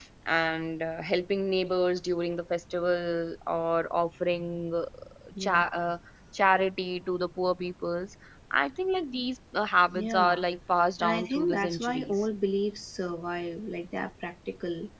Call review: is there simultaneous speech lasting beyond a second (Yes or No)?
Yes